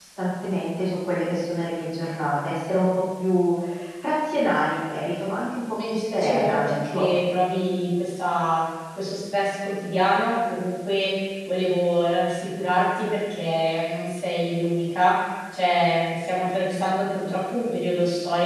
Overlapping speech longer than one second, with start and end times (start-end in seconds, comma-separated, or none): 5.9-7.1